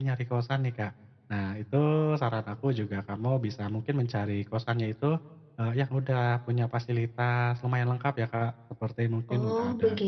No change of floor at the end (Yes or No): Yes